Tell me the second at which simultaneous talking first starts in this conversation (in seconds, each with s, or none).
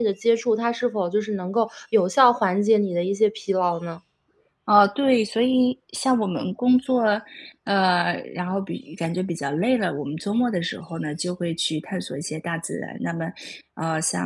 none